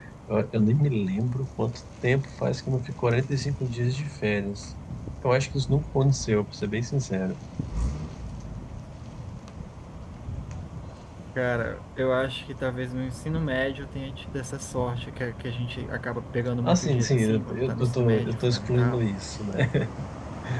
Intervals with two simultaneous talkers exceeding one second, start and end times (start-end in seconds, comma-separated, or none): 16.6-19.1